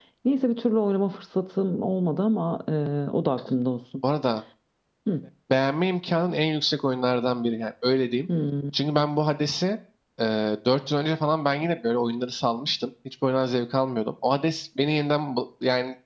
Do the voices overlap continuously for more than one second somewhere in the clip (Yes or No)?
No